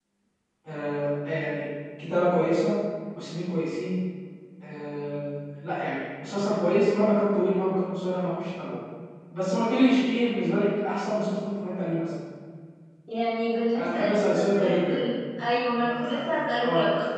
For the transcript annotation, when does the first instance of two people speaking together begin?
13.8 s

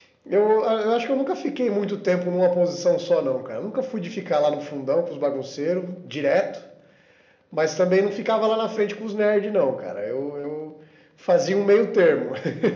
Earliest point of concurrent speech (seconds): none

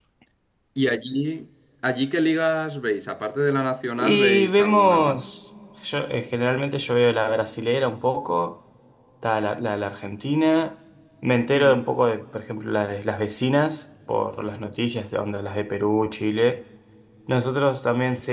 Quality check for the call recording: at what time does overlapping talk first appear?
4.0 s

